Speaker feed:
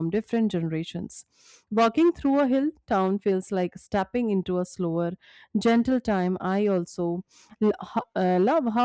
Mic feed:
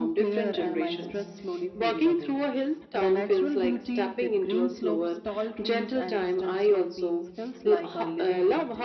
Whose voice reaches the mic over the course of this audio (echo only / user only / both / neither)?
both